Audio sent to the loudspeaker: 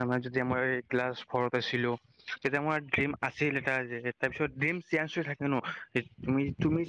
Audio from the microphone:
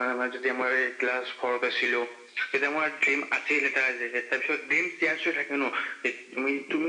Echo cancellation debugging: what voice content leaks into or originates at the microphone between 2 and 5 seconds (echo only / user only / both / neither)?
echo only